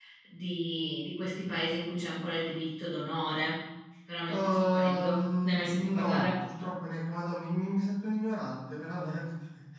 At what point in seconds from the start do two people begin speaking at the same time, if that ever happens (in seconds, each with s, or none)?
4.3 s